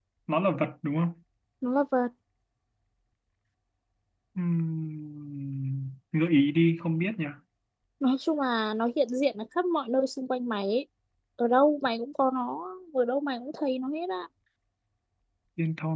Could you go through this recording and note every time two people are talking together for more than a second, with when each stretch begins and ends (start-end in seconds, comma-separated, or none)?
none